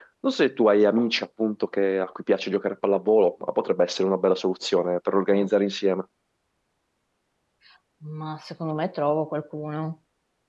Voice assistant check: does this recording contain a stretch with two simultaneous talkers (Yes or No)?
No